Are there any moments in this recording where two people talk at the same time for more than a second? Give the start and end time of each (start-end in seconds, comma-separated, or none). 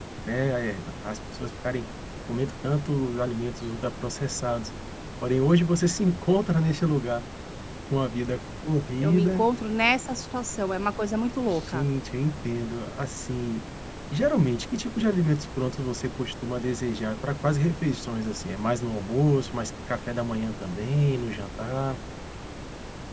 none